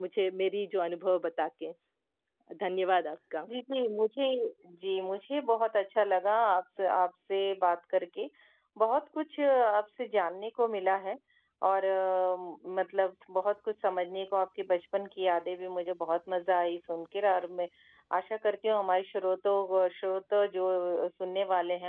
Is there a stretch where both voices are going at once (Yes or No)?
No